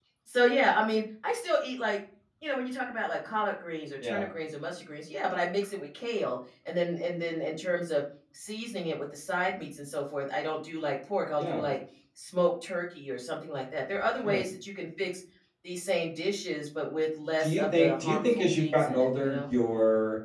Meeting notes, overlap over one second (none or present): present